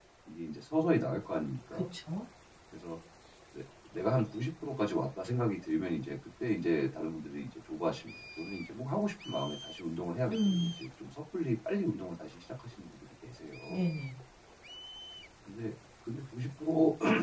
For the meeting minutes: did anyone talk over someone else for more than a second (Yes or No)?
No